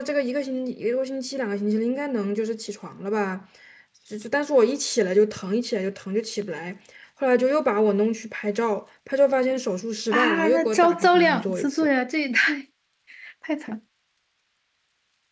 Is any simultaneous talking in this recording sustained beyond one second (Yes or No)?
Yes